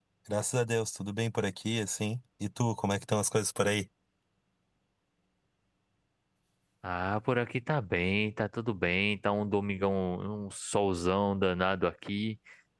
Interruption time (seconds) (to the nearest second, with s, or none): none